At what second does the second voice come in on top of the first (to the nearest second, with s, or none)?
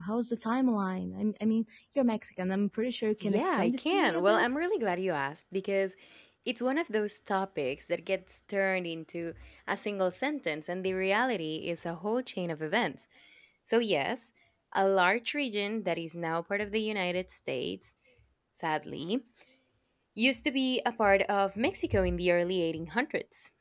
3 s